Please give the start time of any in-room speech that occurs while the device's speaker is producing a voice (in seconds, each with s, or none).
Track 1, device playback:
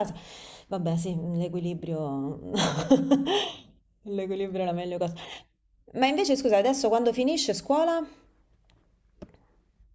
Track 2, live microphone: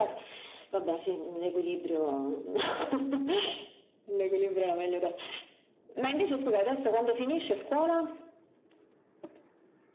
none